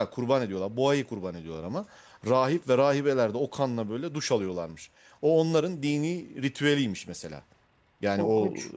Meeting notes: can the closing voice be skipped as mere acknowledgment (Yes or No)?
Yes